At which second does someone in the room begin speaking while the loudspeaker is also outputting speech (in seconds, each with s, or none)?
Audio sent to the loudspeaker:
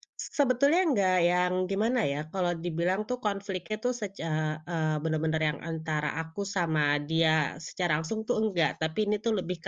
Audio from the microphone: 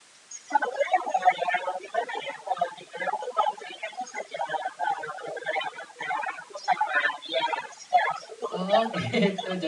8.5 s